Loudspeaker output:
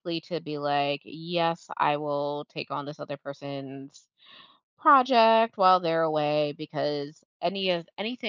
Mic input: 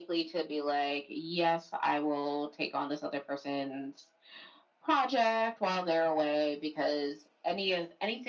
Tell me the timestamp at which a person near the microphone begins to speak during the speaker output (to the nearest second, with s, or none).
none